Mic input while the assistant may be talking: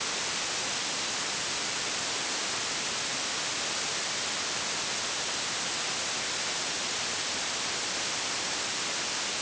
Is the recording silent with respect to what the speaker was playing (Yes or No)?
Yes